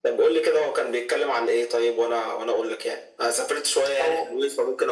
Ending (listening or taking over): listening